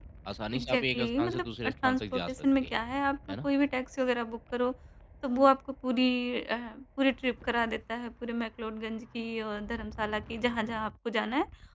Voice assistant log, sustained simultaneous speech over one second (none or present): present